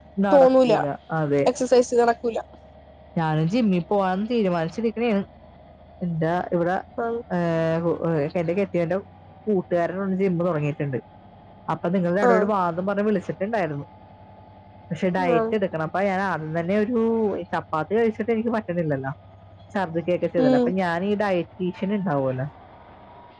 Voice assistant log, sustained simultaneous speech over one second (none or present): none